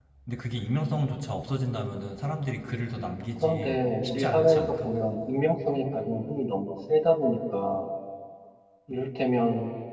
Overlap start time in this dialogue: 3 s

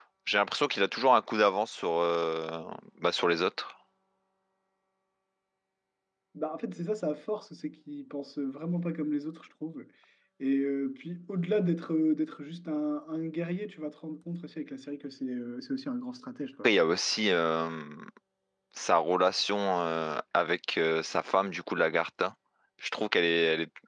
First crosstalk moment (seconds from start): none

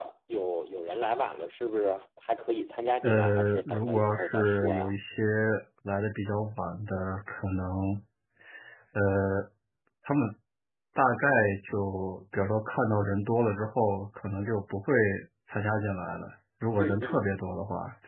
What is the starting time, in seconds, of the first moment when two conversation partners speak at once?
3 s

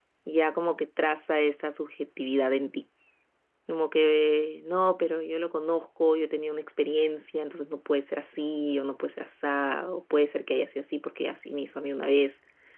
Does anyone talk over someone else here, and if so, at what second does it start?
none

